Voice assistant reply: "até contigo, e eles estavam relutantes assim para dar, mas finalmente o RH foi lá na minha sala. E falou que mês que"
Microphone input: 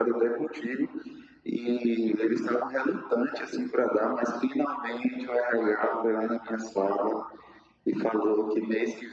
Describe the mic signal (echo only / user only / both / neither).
echo only